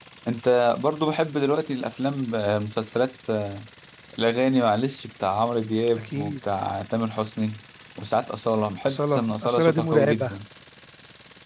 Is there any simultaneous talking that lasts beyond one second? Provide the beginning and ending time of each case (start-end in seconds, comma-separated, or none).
8.9-10.3